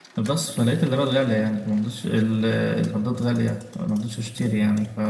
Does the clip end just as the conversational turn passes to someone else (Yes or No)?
No